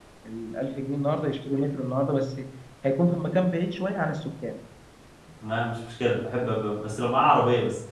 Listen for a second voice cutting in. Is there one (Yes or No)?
No